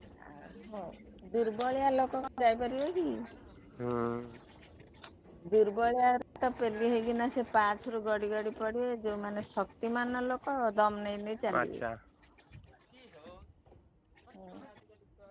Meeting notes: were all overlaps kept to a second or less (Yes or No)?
Yes